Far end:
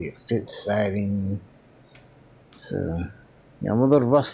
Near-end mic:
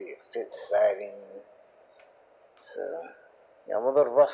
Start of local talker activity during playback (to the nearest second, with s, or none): none